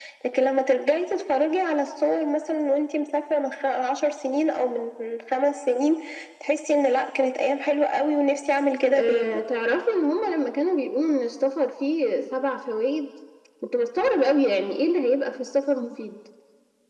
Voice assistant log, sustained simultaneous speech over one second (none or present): none